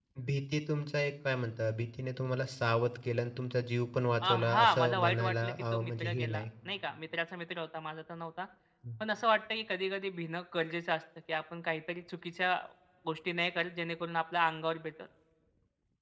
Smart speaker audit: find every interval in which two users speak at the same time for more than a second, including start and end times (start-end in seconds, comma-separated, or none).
4.2-6.4